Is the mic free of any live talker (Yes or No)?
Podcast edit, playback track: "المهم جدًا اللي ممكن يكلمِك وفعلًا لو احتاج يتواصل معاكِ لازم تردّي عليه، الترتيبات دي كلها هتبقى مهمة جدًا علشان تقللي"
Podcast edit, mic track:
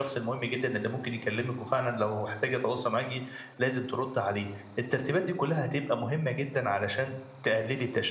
Yes